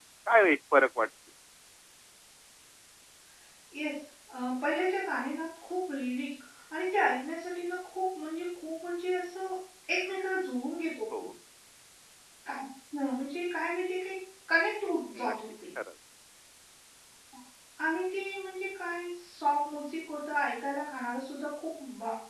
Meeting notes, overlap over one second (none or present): none